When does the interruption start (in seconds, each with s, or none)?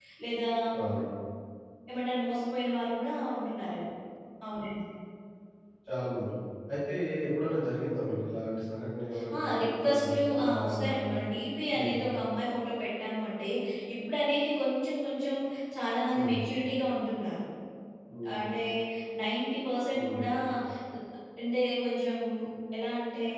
9.4 s